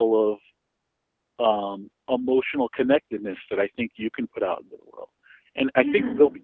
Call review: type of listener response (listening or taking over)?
listening